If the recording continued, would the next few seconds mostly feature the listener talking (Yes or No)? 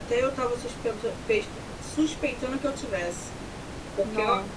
No